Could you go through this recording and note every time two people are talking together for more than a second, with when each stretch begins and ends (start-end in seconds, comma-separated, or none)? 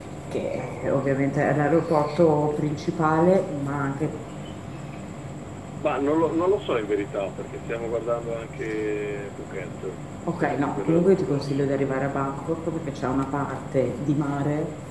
10.4-11.7